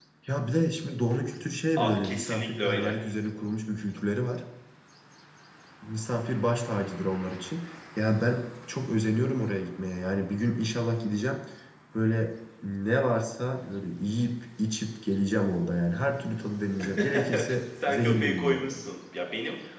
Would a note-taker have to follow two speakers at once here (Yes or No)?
Yes